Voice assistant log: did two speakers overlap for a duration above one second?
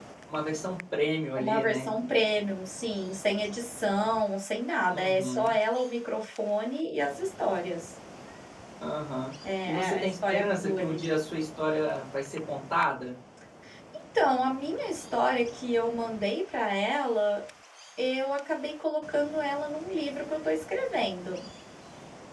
Yes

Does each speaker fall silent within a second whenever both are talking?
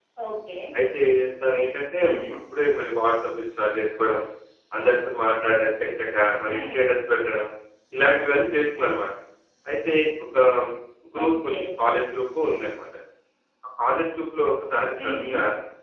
Yes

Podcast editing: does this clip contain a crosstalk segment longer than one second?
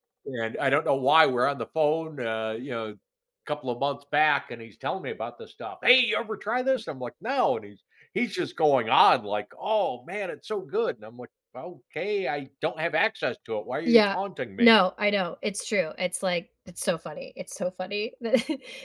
No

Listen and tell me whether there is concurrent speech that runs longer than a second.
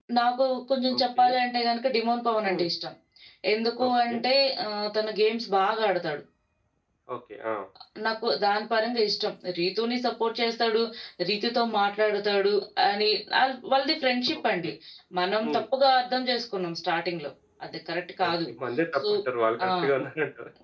No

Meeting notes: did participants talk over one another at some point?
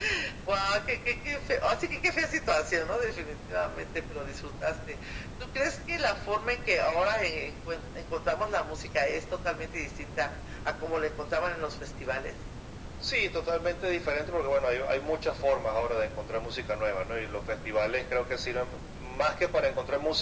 No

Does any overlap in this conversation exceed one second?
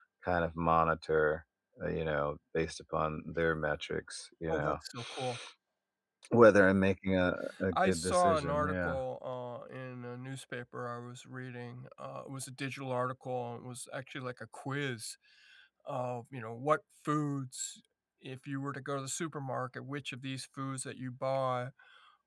Yes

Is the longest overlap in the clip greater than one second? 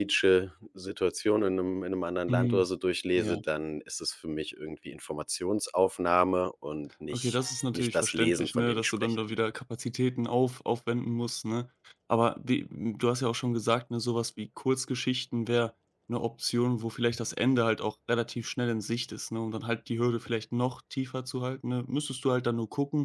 Yes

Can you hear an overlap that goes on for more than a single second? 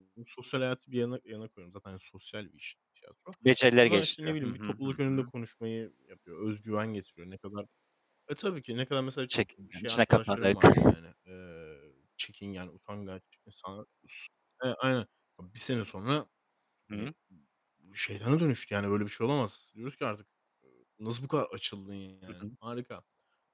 Yes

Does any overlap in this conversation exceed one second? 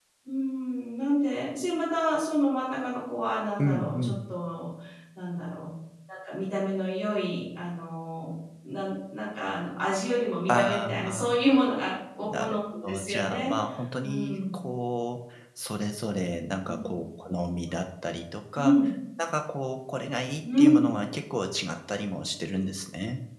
Yes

